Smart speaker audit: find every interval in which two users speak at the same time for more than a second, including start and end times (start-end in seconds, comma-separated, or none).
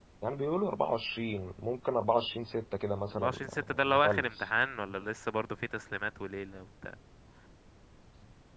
3.2-4.4